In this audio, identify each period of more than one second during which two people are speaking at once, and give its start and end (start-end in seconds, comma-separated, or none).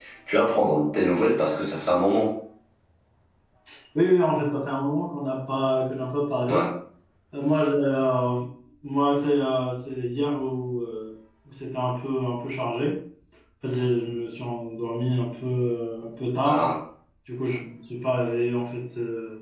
none